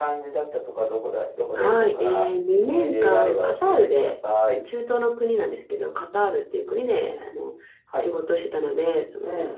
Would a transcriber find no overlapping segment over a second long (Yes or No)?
No